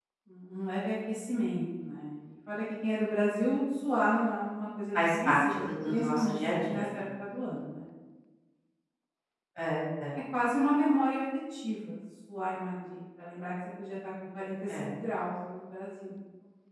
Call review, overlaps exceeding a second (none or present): present